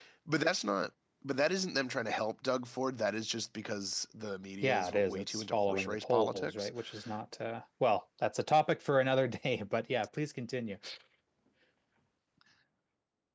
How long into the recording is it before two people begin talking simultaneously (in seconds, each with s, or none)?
4.6 s